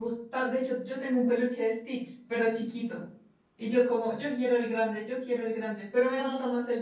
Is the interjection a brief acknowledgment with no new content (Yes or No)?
Yes